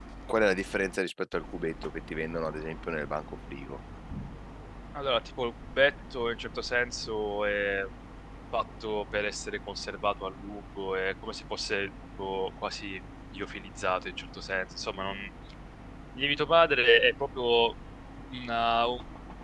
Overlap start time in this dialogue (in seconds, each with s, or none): none